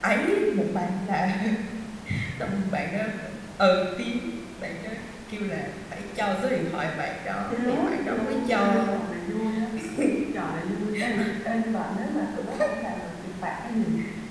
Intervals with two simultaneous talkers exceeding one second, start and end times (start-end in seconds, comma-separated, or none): 7.5-9.0